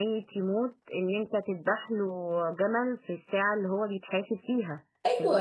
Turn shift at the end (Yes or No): Yes